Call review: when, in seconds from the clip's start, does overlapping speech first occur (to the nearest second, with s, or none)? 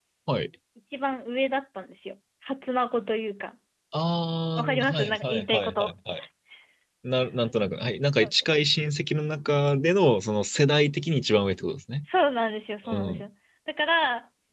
5 s